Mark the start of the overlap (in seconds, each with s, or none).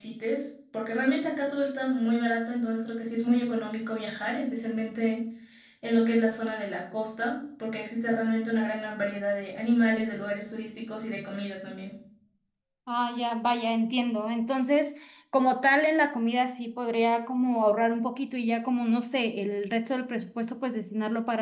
none